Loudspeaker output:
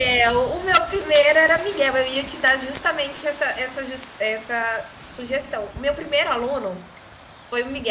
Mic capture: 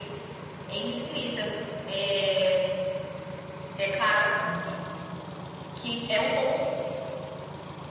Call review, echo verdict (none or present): none